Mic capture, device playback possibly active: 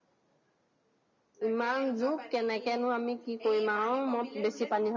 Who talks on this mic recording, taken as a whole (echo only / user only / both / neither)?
both